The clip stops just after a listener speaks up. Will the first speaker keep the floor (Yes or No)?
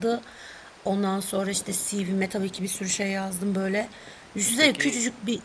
Yes